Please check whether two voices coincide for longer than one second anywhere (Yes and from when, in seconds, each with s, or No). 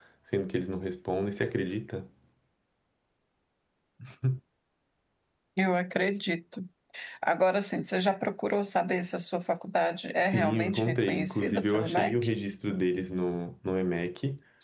Yes, from 10.2 s